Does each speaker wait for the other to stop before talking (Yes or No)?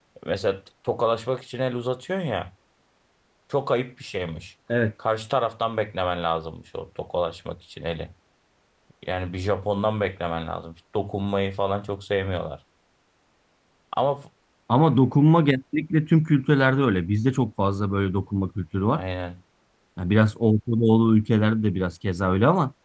Yes